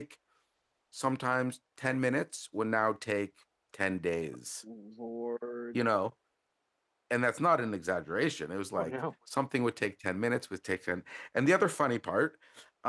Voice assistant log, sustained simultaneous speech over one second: none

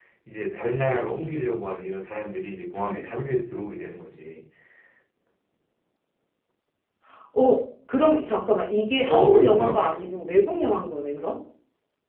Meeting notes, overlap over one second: present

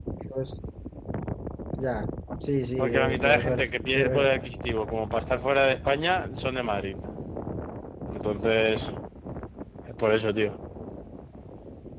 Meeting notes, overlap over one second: present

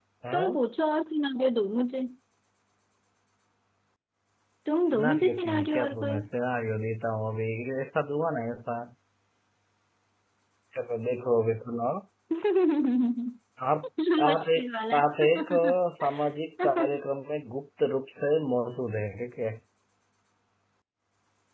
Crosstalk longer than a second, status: present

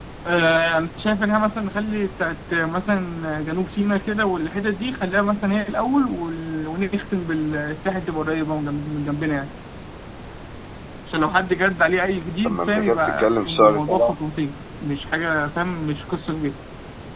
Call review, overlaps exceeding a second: present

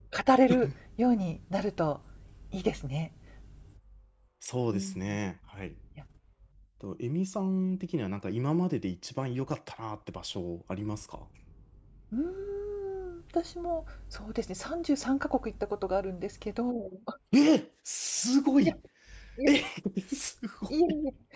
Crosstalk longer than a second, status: none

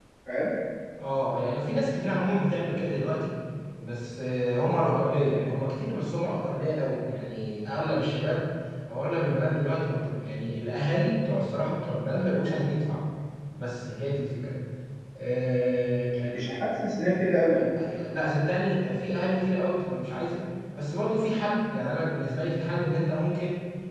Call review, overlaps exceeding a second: none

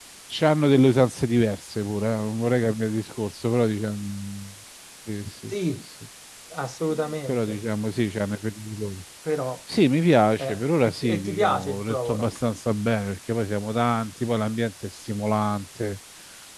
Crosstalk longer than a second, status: present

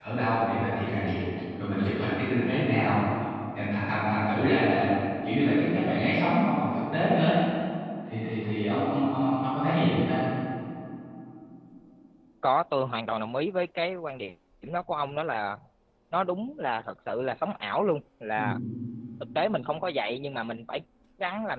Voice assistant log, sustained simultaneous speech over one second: none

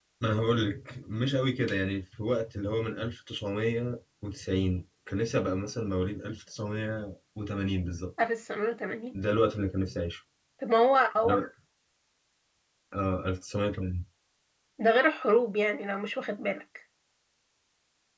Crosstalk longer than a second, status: none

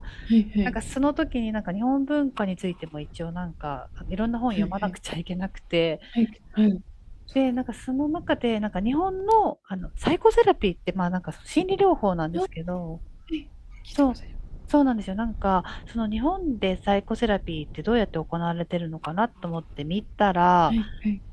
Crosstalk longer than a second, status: none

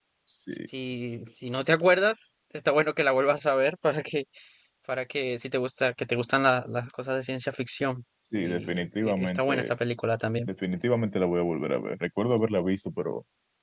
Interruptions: present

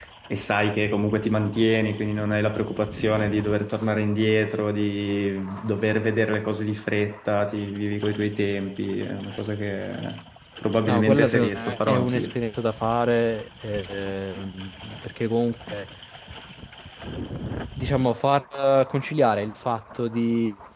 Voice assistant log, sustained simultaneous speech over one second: present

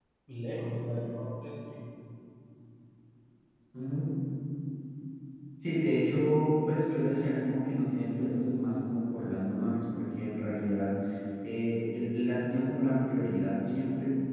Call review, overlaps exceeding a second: none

